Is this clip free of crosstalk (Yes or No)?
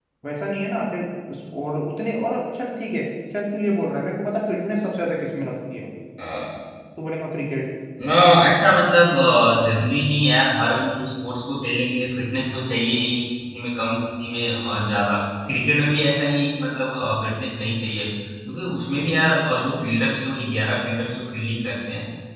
Yes